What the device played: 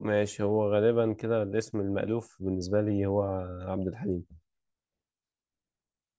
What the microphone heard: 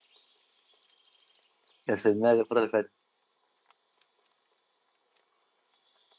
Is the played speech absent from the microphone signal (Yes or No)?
Yes